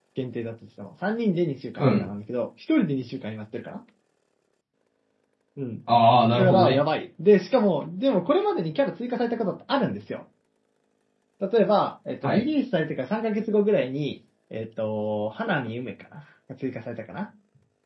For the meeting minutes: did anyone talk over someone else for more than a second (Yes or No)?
No